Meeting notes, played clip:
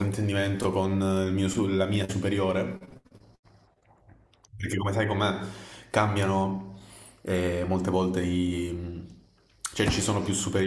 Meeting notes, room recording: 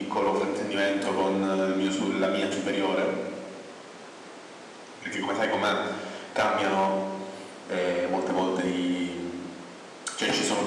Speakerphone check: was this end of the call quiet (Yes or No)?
Yes